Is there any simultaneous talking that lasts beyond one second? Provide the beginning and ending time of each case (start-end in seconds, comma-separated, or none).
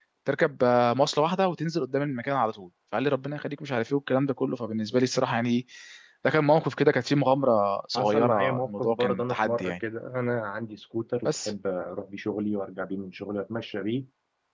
8.0-9.7